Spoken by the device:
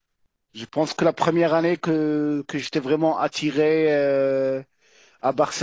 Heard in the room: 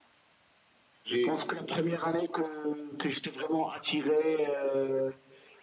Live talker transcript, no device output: Et

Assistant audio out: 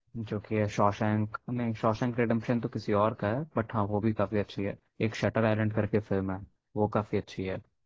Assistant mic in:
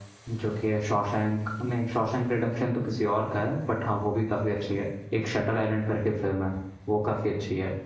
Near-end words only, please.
none

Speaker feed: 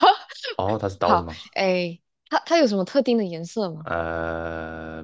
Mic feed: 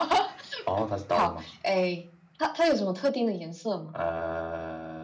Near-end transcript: none

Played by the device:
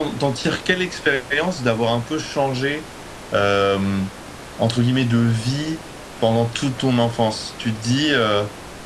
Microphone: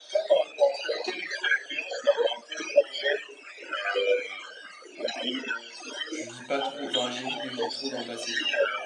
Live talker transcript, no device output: je vis pas trop, enfin, j'évite de vivre trop dans le passé.

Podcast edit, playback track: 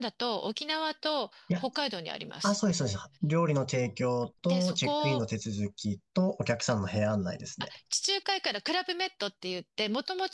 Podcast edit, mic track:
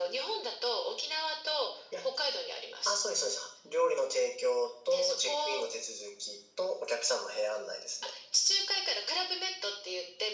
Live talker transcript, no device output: none

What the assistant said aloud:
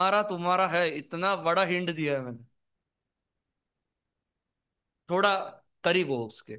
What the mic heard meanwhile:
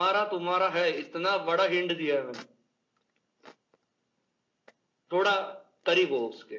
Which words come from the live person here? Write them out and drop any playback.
none

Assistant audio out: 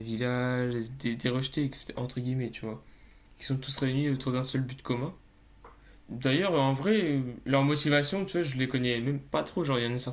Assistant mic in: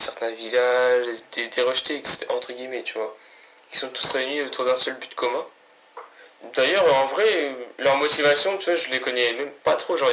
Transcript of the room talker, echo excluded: none

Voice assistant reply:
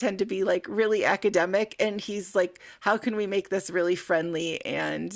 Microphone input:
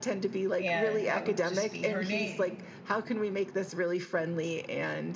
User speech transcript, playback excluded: and that would just be her name.

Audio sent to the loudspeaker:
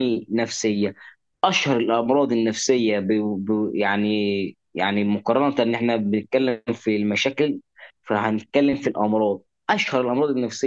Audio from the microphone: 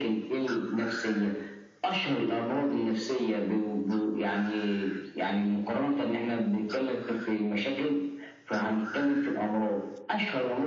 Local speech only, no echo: none

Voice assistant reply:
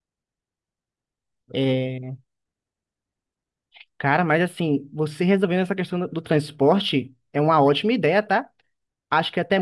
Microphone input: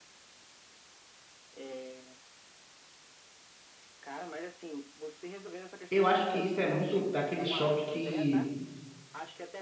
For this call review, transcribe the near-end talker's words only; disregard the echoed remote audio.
eu acho que isso é muito daquele choque que.

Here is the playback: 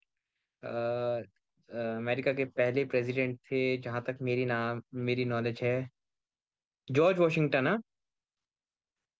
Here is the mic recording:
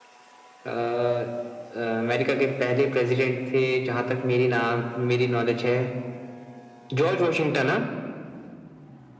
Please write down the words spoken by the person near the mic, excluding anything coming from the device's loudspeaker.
none

